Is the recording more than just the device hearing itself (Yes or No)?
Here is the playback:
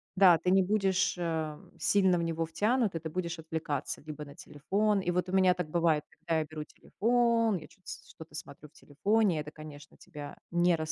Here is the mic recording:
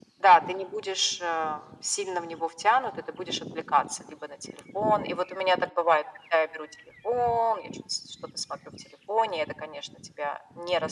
No